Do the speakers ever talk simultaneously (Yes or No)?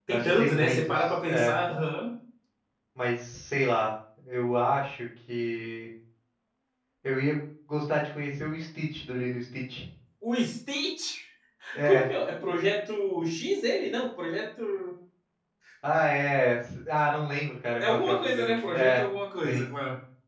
Yes